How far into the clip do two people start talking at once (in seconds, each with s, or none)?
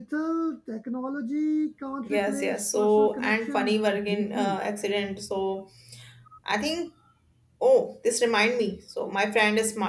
2.0 s